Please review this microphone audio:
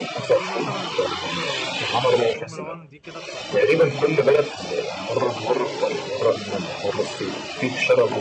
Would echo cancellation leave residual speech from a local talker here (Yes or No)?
Yes